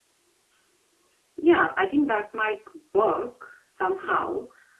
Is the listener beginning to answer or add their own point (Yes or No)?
No